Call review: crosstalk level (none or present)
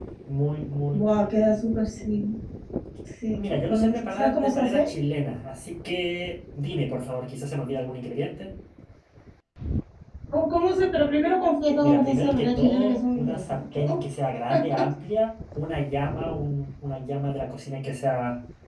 present